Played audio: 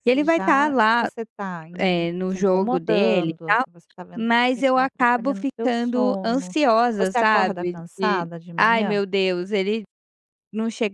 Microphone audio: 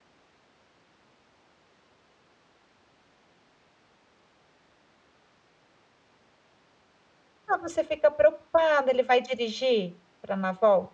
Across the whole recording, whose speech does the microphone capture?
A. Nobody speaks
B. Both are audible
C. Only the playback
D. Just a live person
D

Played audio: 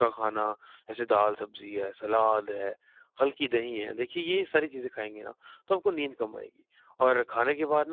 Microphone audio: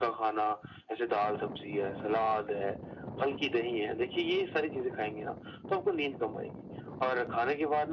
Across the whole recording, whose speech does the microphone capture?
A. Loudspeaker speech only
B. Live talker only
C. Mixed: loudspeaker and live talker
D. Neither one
A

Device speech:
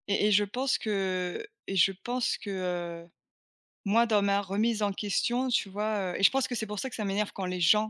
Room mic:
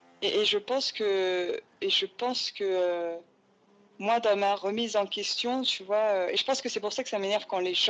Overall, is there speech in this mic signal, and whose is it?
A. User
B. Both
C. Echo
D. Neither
C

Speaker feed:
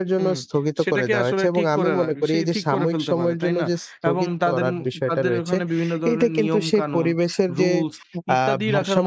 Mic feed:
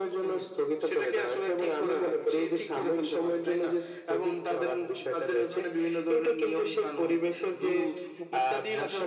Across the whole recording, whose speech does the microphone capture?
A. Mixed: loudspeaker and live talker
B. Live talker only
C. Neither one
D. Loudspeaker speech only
D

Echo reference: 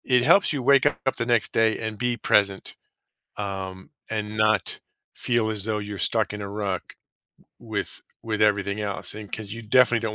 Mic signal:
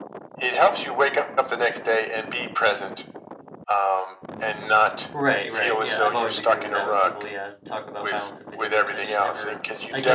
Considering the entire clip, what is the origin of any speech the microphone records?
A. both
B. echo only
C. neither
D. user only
A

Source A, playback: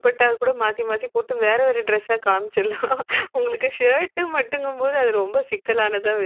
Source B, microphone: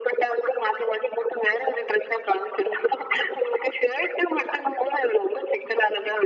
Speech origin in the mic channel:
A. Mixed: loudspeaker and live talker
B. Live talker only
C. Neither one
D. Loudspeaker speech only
D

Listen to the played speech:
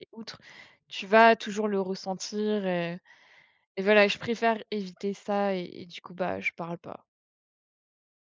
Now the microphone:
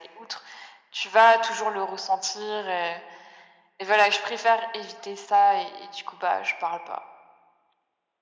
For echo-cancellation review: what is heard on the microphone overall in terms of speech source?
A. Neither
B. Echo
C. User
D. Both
B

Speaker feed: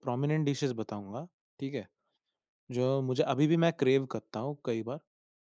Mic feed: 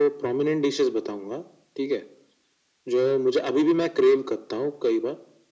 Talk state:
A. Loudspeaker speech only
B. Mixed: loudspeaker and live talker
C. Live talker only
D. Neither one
A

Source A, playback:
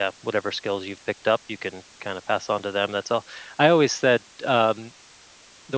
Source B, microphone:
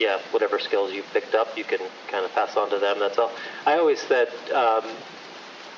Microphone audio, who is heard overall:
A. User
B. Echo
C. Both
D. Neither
B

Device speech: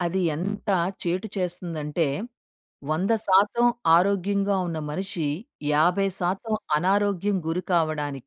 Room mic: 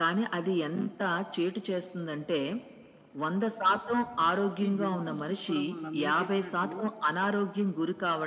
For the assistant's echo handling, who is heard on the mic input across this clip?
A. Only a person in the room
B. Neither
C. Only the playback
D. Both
D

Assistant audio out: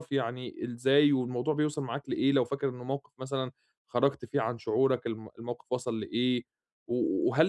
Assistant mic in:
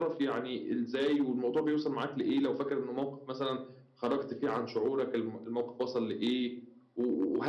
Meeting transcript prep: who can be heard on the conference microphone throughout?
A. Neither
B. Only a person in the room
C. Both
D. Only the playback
D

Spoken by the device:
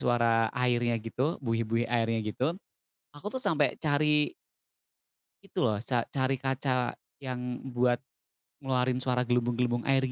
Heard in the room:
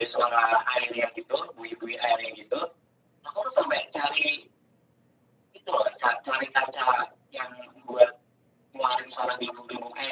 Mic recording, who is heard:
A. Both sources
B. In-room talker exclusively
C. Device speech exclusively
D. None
C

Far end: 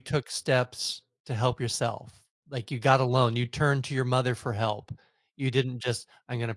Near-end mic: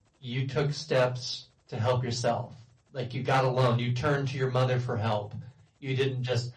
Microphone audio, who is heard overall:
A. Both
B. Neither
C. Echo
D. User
C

